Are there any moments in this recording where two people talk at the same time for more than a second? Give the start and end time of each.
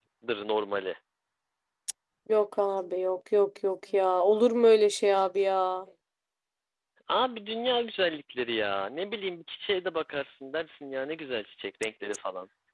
none

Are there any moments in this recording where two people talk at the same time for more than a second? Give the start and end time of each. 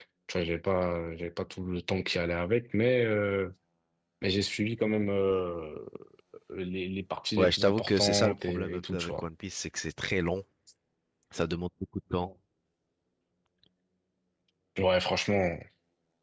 7.4-9.2

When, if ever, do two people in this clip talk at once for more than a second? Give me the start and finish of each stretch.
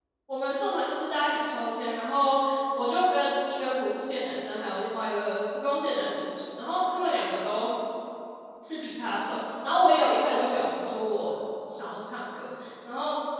none

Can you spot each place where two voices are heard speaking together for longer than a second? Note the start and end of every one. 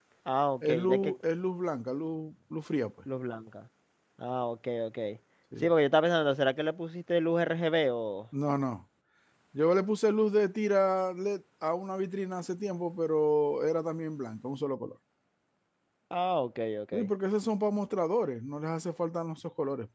none

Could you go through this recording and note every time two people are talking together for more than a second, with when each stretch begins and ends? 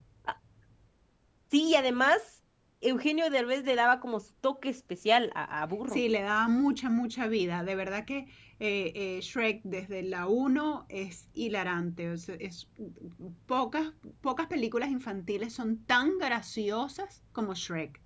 none

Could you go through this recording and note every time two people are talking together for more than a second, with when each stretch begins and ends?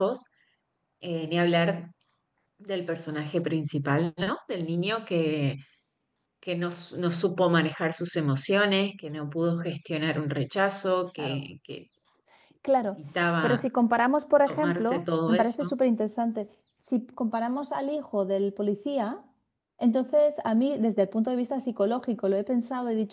14.5-15.7

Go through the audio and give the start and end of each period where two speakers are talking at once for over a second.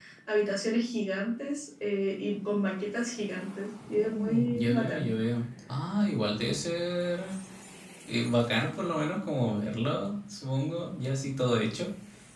3.9-5.1

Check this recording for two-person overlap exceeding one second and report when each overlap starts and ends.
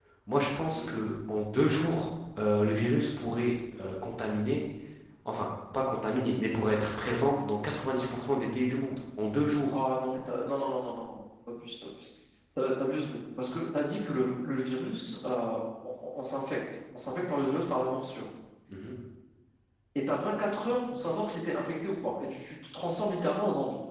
none

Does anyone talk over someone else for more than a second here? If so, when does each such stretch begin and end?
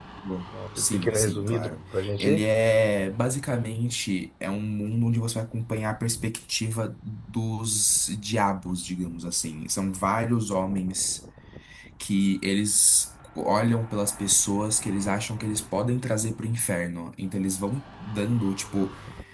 0.5-1.7

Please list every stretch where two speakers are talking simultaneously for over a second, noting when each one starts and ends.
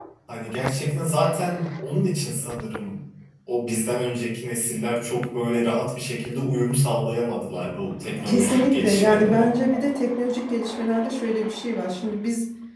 8.2-9.5

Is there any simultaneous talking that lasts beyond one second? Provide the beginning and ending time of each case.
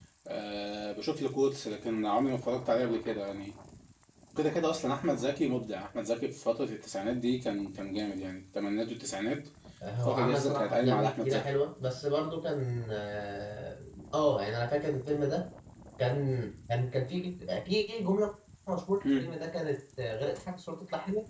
10.0-11.5

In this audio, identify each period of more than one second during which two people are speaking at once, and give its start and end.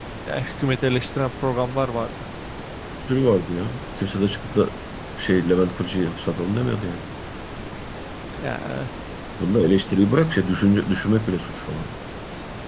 none

